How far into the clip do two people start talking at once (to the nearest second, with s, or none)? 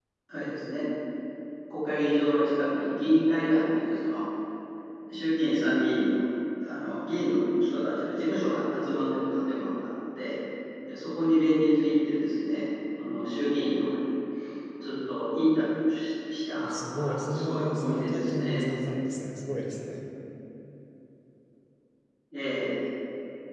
17 s